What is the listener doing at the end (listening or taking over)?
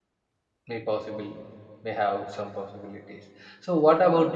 listening